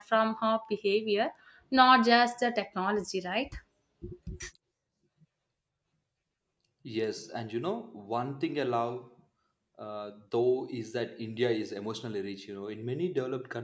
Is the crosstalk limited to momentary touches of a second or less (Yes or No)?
Yes